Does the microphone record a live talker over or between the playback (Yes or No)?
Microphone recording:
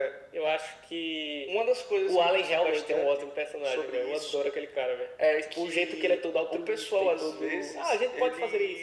No